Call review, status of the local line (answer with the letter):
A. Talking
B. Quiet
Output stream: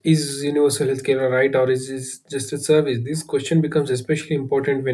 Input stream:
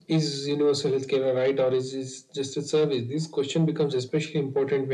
B